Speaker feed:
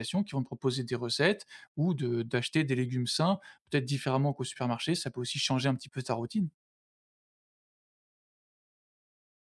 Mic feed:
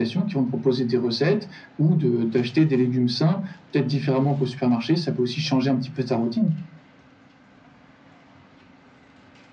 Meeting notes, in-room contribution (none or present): none